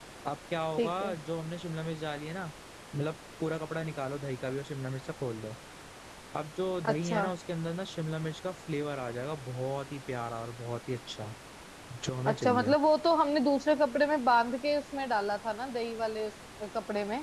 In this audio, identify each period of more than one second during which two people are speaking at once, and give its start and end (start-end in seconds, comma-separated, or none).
none